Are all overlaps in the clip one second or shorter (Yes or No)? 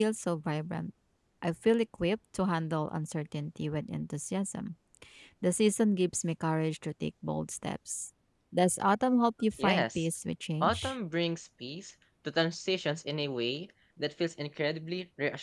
Yes